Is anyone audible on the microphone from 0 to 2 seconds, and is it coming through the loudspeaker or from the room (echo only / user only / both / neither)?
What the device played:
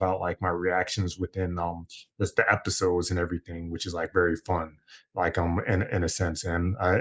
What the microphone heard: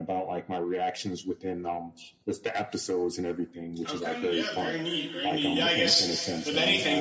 echo only